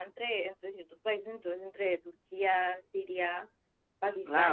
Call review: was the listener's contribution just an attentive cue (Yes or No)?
No